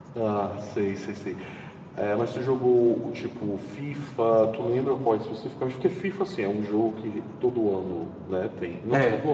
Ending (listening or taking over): listening